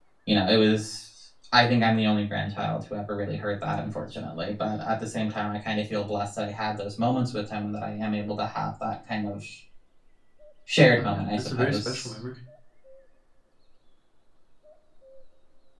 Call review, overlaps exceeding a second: present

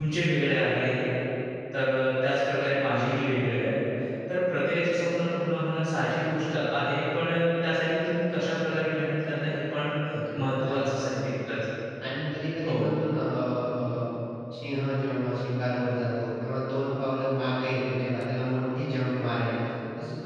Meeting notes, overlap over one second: none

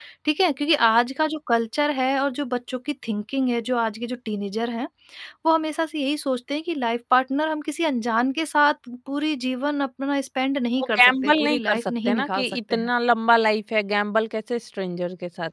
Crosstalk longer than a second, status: present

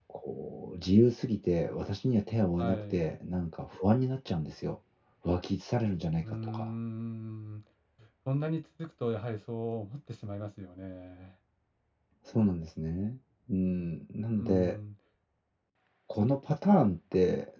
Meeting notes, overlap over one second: none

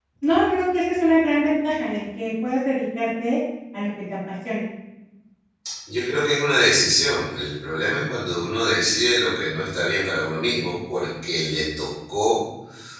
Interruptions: none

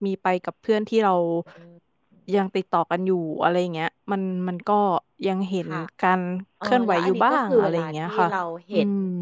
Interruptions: present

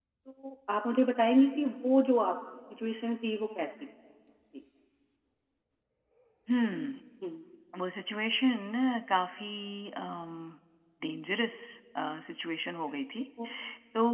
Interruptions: none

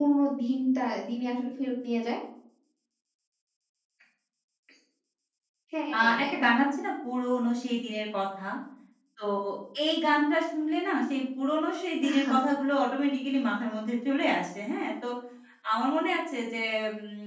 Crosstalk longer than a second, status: none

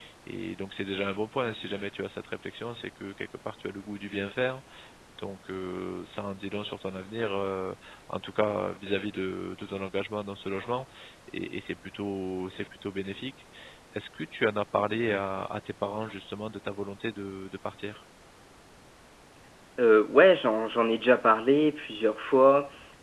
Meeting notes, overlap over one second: none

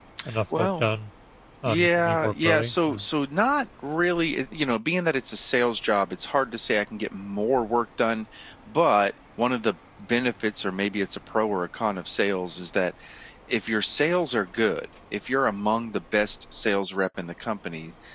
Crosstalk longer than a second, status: present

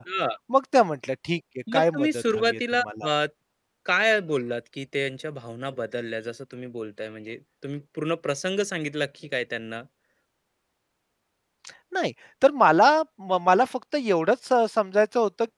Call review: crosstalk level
present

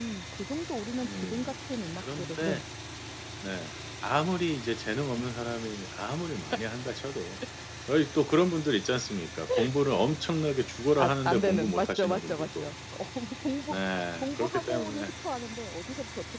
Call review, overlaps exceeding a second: present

